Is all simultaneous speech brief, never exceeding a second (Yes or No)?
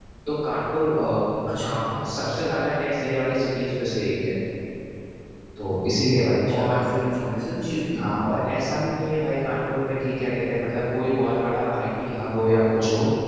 Yes